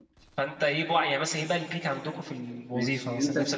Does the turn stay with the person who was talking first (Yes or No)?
No